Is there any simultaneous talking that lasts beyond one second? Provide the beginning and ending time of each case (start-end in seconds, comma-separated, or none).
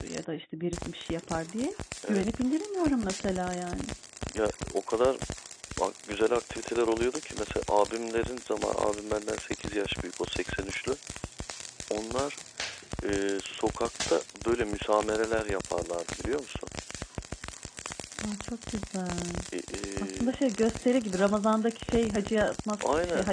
none